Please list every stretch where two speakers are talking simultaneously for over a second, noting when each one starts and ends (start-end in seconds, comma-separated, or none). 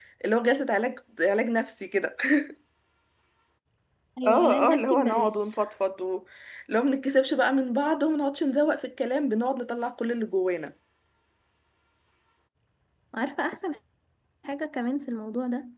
4.3-5.6